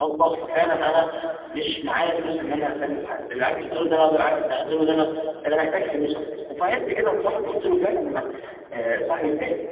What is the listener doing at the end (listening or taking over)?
listening